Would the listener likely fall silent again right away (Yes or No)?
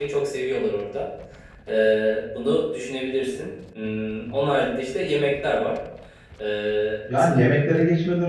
No